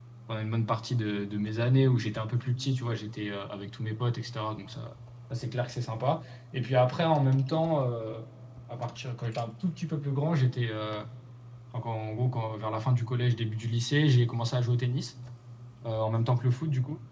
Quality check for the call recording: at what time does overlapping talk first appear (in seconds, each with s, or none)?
none